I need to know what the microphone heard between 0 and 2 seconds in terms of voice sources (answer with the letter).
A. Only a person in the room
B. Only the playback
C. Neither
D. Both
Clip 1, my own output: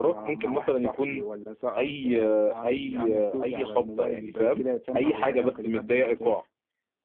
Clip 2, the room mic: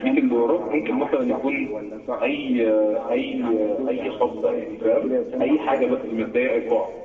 B